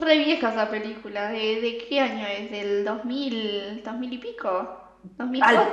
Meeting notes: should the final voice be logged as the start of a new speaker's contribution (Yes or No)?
Yes